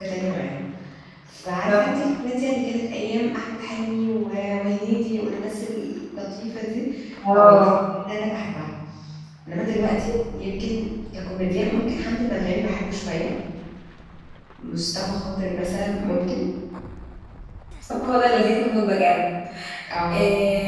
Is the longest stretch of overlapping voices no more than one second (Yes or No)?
Yes